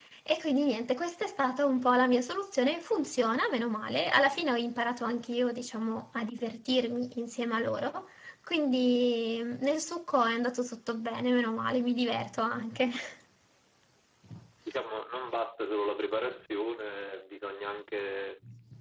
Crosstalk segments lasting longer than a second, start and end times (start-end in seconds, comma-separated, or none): none